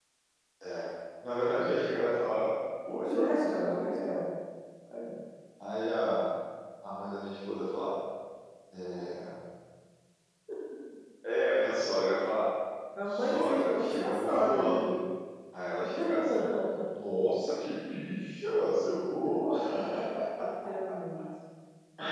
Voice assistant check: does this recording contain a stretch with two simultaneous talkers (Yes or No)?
Yes